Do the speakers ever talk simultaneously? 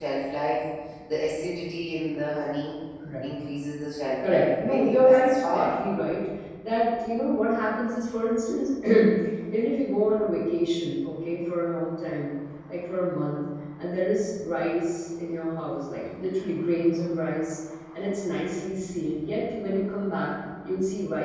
Yes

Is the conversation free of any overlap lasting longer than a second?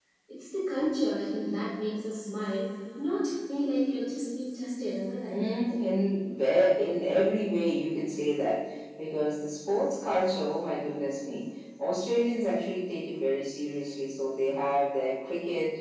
Yes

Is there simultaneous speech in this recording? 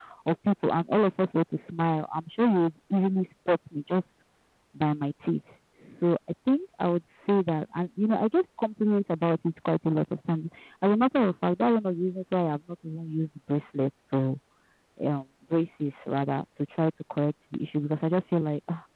No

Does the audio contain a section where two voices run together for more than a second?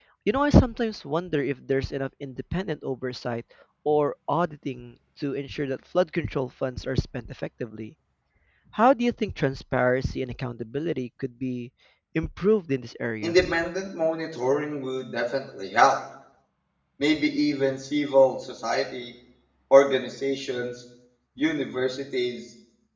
No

